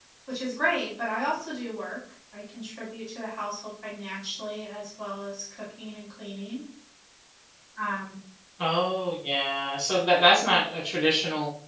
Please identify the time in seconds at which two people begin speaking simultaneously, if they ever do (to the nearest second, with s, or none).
none